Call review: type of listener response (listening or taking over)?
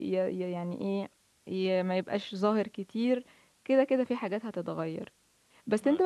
listening